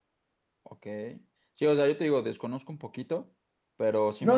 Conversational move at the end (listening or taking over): taking over